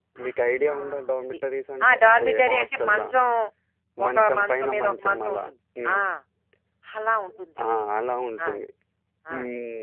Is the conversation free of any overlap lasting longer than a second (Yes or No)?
No